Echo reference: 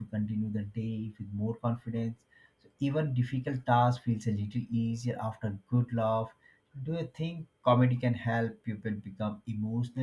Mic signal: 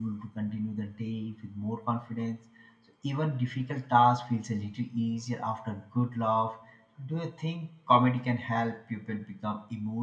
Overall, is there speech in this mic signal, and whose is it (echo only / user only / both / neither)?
echo only